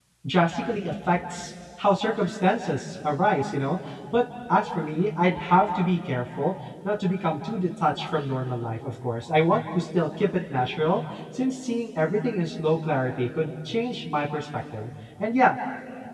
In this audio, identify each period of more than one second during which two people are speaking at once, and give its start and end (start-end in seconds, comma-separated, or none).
none